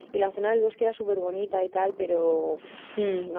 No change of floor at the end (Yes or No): Yes